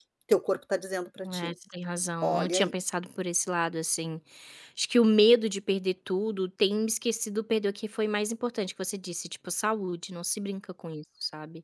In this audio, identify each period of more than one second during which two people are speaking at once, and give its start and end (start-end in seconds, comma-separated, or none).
none